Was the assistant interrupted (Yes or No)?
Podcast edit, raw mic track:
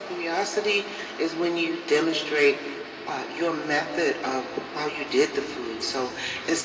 No